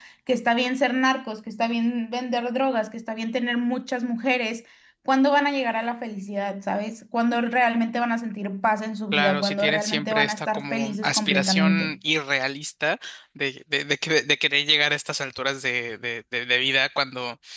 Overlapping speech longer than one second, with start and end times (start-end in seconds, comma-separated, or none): 9.1-11.9